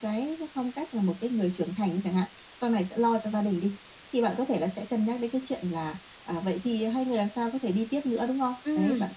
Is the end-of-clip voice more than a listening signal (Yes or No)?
No